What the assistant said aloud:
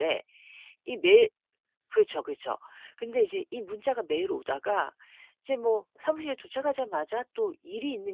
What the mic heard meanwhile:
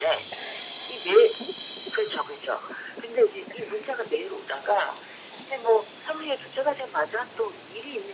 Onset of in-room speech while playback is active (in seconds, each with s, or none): none